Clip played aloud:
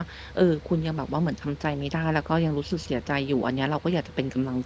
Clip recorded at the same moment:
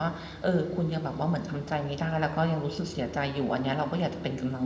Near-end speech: none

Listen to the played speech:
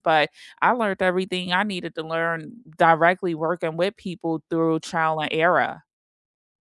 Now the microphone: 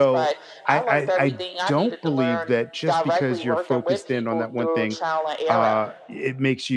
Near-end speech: present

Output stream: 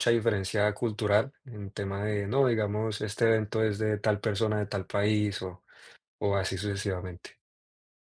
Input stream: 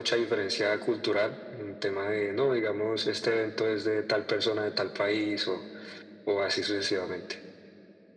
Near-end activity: none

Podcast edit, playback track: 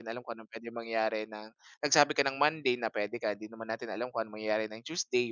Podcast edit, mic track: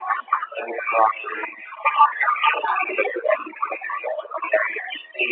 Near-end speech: none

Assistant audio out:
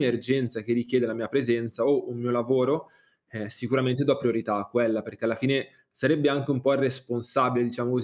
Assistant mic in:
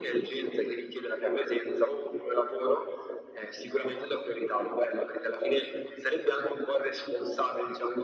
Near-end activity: none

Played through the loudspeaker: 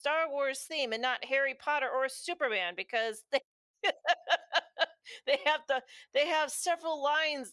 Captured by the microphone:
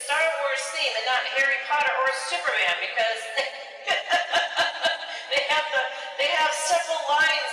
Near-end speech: none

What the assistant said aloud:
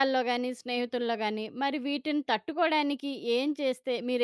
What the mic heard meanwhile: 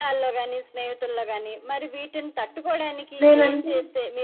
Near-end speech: present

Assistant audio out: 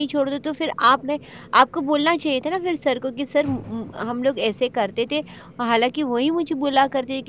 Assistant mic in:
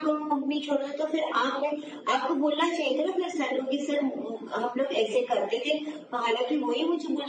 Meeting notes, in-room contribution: none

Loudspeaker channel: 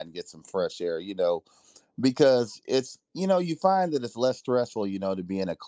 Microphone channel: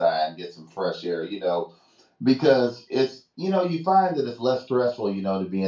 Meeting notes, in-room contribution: none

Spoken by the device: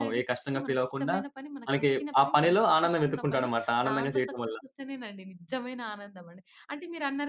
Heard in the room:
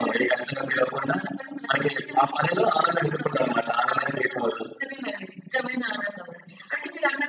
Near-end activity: none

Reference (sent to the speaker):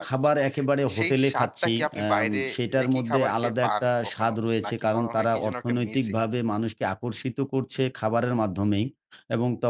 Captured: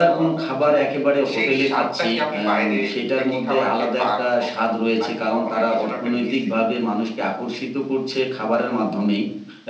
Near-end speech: none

